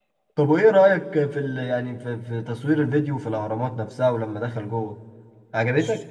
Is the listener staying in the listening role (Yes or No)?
No